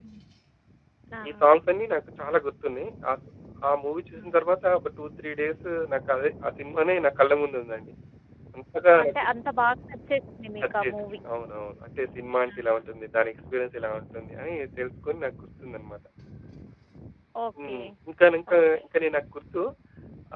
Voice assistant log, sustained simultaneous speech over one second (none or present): none